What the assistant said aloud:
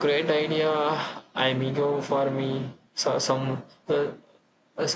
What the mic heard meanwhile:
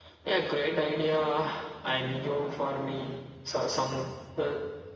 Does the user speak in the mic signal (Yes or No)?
No